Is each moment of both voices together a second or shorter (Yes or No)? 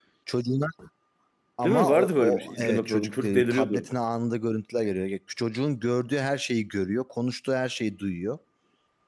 No